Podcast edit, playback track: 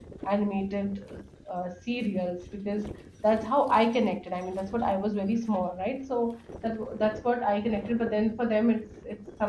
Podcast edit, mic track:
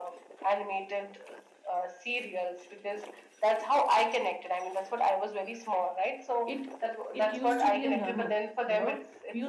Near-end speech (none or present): present